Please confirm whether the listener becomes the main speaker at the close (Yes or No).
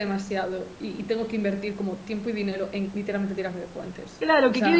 Yes